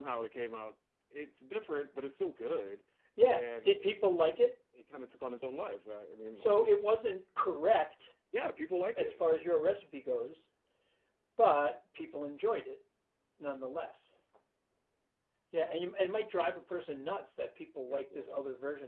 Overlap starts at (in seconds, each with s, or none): 3.2 s